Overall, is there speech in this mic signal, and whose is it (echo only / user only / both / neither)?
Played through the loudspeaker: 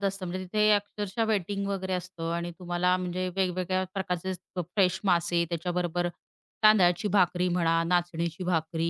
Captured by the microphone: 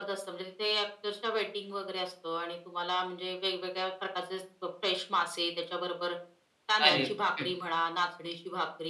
both